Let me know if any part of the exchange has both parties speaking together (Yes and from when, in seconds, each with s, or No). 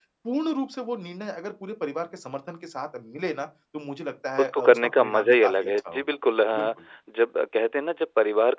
Yes, from 4.4 s